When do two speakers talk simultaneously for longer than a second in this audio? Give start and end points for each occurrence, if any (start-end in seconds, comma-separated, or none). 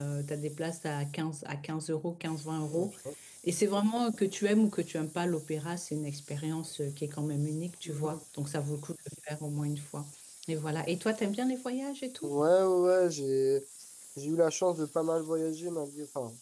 none